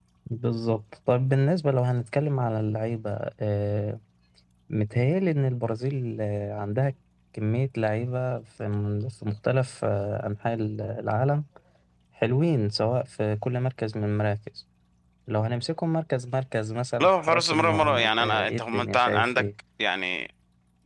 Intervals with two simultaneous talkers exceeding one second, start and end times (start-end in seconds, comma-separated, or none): 17.0-19.4